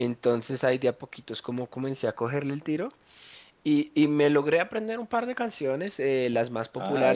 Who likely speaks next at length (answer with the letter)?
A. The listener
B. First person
B